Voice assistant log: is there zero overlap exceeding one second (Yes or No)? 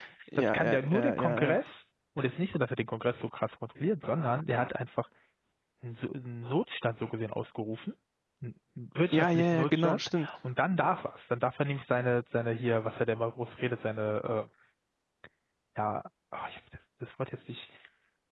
No